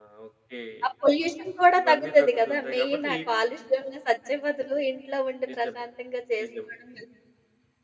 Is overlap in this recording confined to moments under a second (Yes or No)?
No